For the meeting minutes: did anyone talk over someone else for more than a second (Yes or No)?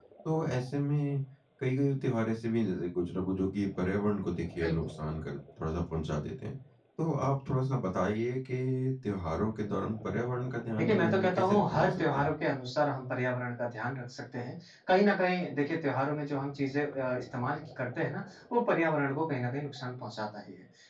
Yes